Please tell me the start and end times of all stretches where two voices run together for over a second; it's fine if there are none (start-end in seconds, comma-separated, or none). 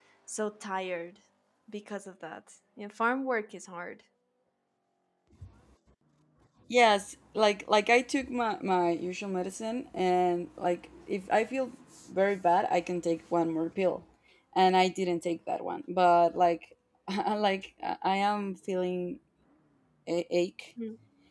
none